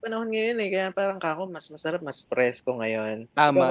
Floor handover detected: Yes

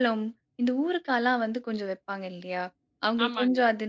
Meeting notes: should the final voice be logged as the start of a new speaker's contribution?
No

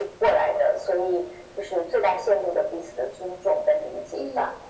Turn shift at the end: Yes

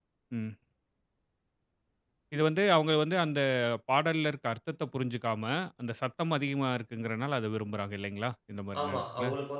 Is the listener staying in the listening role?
No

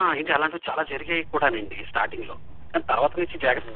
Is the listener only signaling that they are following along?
No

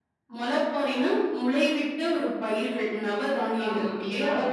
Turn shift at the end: Yes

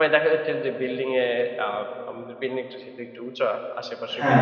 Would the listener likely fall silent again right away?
Yes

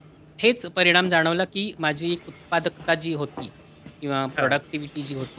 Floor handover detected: No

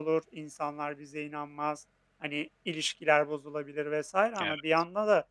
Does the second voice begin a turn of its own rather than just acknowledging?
No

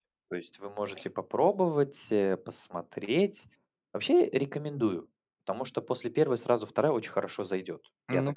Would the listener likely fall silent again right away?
No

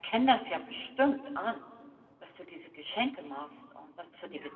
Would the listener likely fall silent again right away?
No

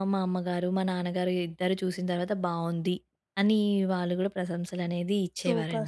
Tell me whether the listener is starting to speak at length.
Yes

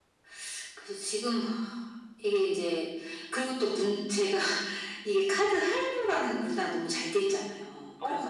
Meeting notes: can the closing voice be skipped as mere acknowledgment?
No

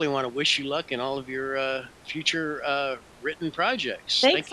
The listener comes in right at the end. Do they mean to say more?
Yes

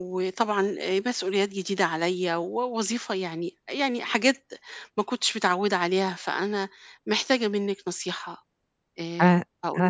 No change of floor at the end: No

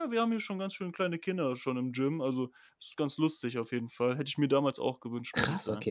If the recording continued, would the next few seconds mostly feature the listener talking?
Yes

